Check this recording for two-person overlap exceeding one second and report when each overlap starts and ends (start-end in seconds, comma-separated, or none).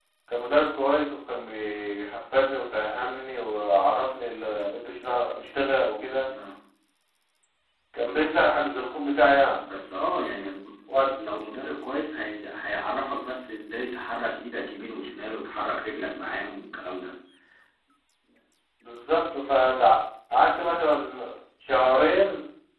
none